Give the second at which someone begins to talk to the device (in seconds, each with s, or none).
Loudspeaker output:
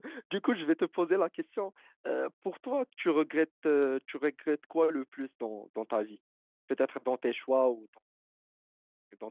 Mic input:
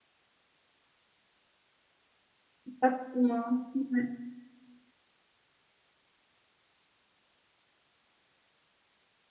2.6 s